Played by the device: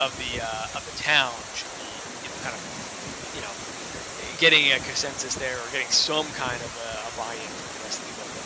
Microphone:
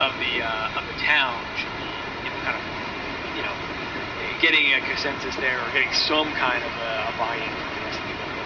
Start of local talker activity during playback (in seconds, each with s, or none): none